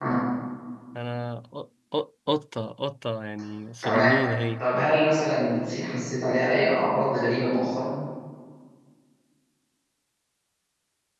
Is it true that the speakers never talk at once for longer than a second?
Yes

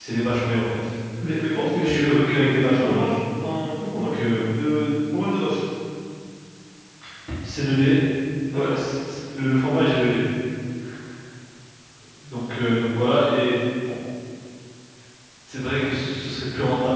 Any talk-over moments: Yes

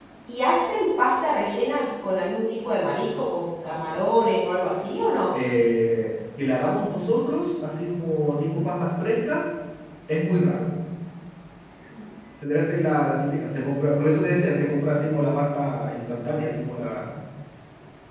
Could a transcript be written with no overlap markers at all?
Yes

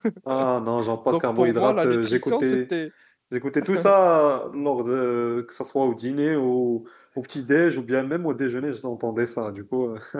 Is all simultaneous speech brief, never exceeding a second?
No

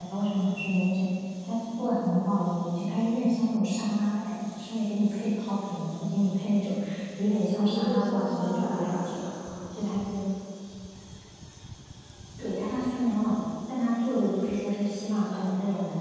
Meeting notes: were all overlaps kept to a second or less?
No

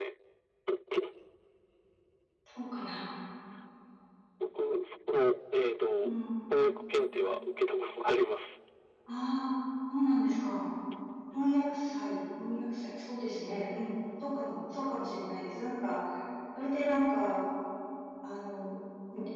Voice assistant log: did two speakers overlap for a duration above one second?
No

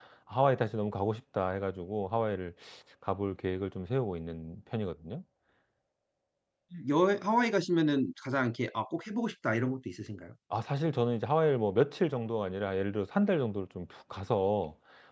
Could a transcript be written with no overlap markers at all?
Yes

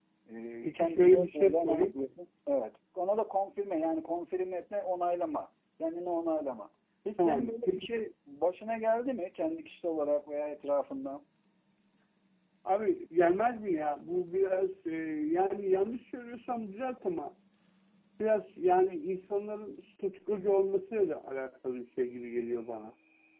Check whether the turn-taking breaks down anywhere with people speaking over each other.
Yes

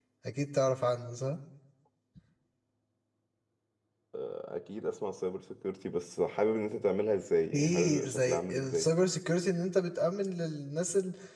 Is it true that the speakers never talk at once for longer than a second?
No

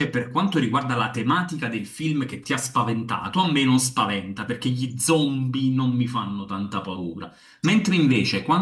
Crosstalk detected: No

